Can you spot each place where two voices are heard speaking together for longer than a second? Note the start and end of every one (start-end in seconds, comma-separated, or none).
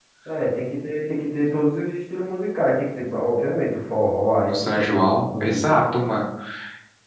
4.5-5.8